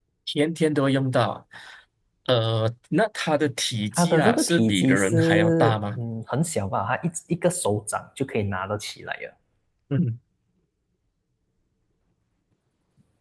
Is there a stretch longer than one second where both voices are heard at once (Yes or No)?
Yes